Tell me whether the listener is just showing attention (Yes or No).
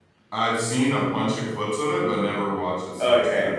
No